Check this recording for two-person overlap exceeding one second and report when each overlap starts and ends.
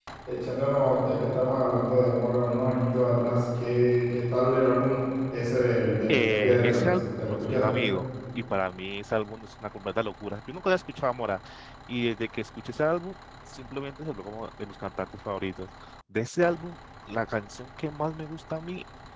6.1-7.8

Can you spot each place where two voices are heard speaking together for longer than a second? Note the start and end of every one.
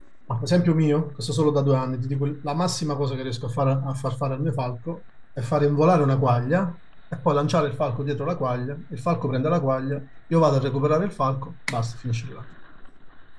none

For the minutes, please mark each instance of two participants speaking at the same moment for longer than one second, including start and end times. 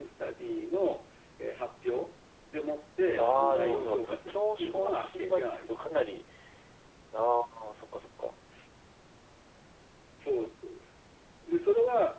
3.2-5.8

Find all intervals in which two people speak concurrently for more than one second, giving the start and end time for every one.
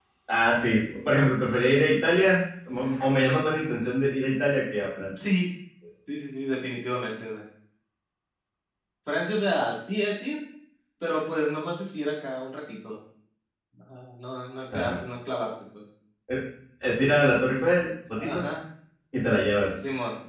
none

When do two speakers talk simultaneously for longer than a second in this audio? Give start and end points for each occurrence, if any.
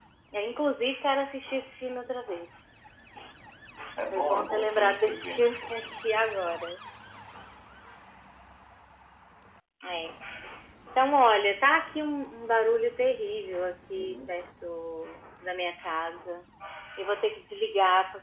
4.1-5.4

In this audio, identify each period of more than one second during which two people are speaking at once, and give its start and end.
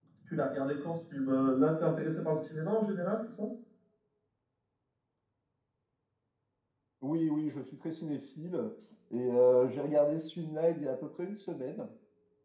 none

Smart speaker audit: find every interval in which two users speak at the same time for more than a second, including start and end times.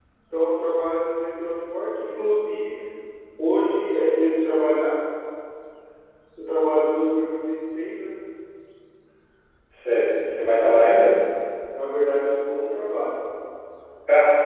none

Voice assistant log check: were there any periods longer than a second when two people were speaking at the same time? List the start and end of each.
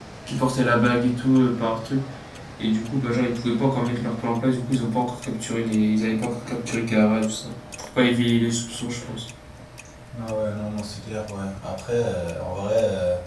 none

